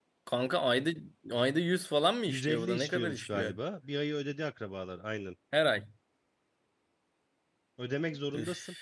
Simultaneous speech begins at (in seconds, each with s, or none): 2.3 s